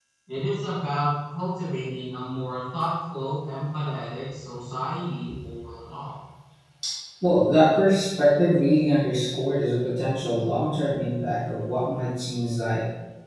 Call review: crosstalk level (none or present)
none